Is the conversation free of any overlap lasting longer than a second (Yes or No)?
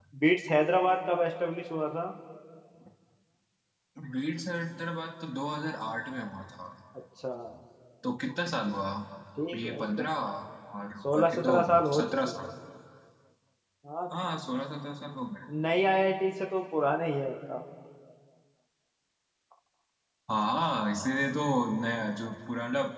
No